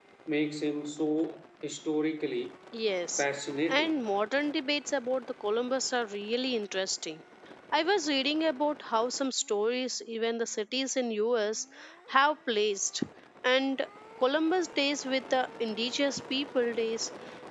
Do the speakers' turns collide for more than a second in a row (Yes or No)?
No